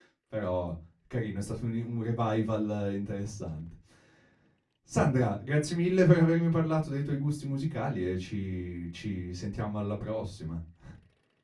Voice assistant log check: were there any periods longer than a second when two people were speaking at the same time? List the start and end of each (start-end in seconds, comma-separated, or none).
none